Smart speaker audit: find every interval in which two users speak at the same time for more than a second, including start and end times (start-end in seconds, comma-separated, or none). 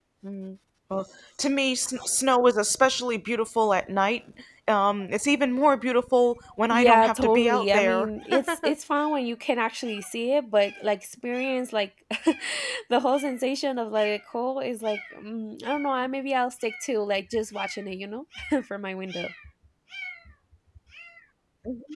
6.7-8.1